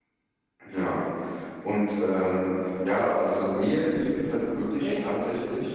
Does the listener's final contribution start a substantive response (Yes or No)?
No